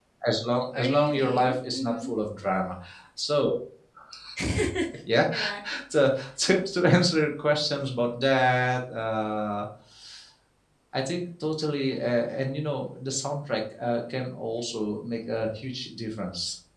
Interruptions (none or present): present